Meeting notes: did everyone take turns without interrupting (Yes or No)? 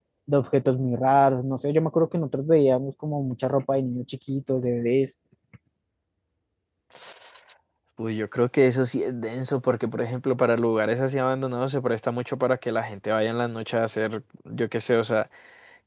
Yes